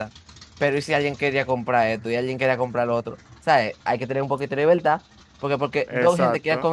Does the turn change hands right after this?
No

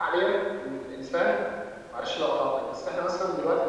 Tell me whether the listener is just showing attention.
Yes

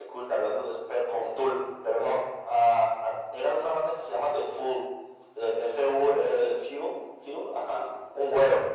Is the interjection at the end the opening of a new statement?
No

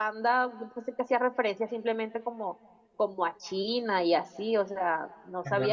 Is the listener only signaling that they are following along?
Yes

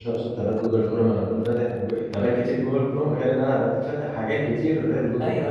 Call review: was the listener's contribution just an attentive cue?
No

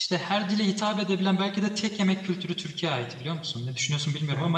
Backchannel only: No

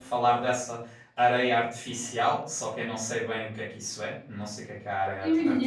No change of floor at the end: No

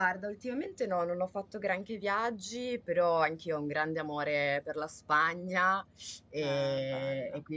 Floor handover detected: No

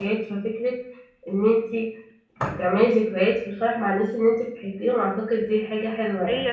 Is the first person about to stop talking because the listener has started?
Yes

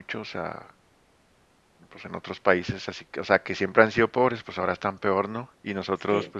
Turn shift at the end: No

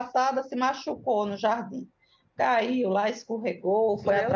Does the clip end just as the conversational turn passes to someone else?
No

